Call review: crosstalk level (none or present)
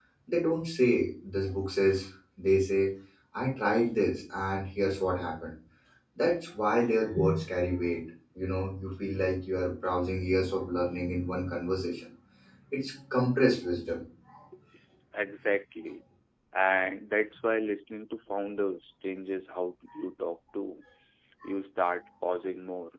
none